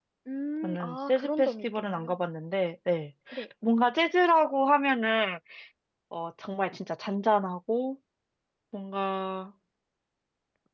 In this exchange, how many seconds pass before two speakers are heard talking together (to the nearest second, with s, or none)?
1 s